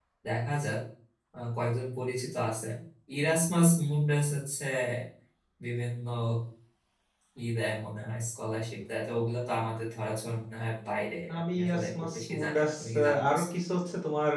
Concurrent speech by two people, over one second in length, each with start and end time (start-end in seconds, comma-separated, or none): 11.4-13.4